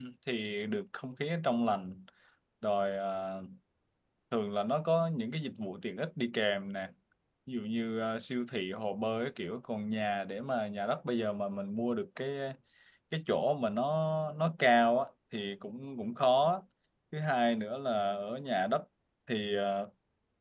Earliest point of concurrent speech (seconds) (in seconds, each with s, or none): none